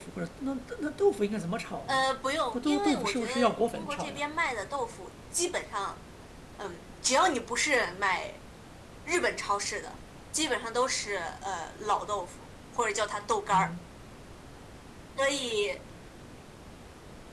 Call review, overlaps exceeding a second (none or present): present